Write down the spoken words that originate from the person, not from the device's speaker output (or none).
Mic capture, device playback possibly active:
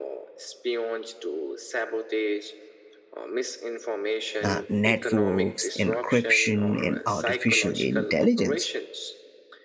uh, networks, encryption, and artificial intelligence.